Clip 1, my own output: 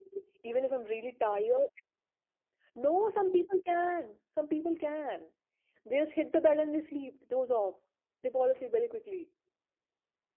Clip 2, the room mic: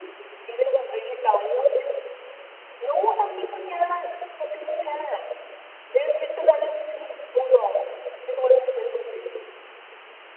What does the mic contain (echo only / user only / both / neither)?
echo only